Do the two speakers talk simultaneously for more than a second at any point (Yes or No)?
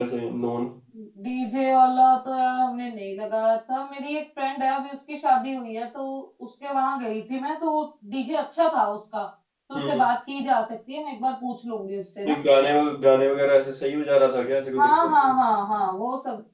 No